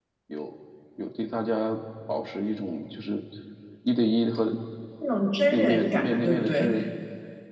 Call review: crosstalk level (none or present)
present